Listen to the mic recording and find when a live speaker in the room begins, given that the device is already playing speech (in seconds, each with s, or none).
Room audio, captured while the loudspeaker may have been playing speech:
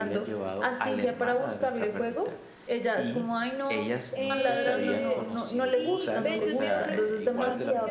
4.1 s